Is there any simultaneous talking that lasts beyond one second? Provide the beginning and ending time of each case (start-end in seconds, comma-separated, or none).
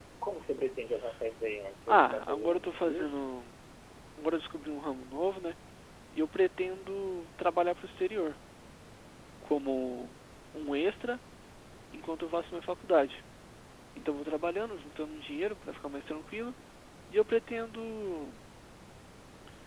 1.9-3.2